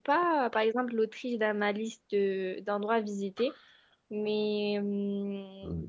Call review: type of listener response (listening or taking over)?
taking over